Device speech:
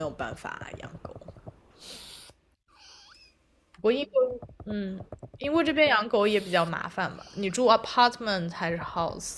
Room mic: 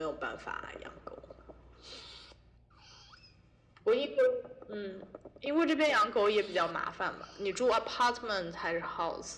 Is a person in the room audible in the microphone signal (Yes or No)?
No